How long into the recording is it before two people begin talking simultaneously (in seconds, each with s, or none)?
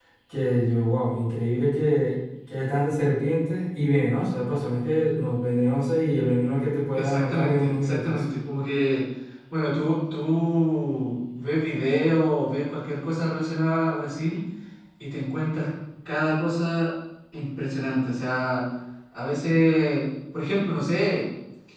6.9 s